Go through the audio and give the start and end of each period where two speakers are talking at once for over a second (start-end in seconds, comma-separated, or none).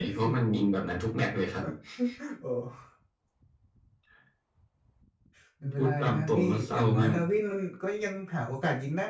5.7-7.2